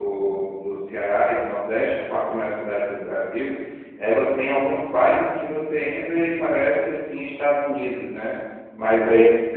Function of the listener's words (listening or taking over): listening